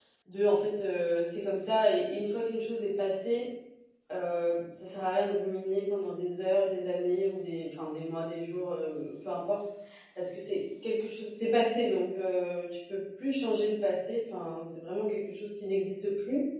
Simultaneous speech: No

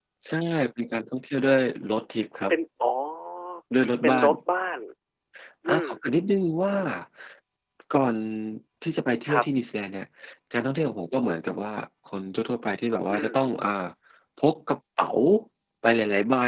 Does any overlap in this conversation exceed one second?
No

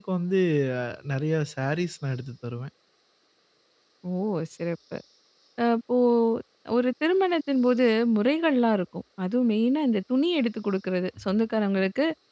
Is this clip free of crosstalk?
Yes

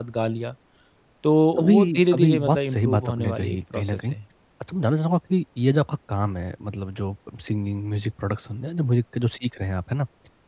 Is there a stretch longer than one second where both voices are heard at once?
Yes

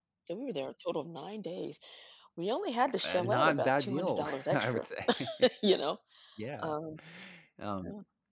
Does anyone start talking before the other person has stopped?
Yes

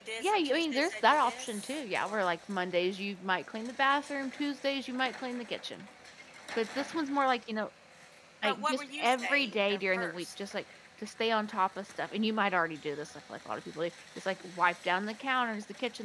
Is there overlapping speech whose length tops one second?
Yes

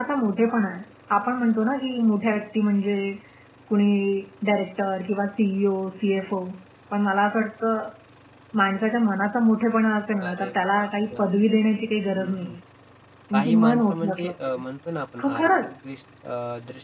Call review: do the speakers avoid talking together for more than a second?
No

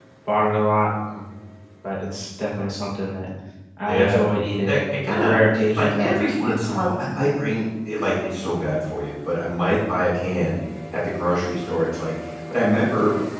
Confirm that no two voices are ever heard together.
No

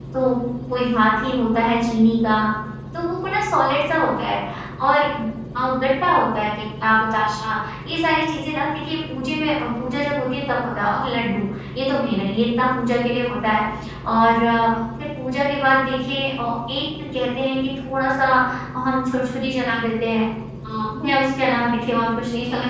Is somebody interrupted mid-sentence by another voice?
No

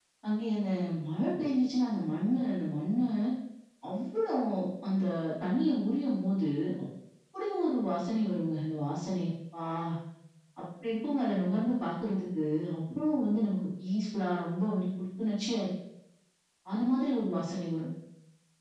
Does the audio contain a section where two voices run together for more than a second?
No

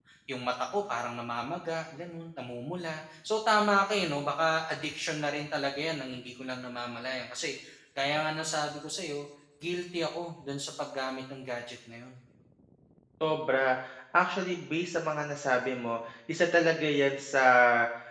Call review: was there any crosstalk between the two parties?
No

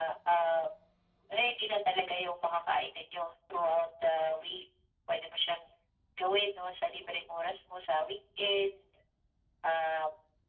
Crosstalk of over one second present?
No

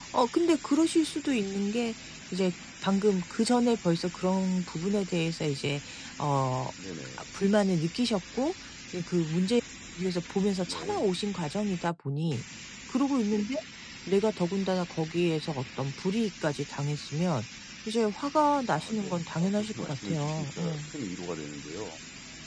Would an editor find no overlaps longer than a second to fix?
No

